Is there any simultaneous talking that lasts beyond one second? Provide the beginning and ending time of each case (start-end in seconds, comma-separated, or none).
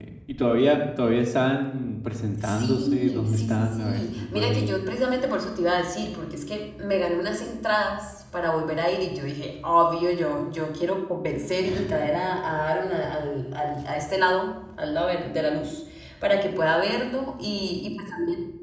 2.4-4.8